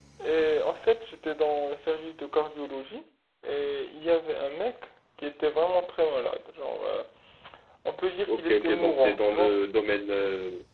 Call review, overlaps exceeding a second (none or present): present